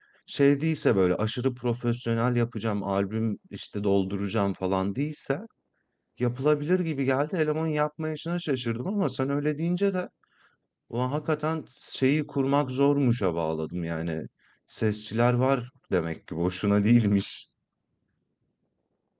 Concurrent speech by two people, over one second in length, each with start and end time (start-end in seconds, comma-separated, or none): none